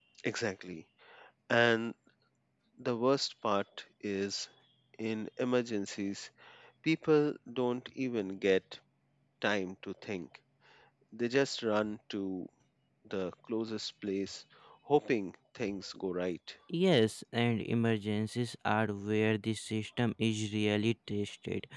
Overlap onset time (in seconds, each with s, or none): none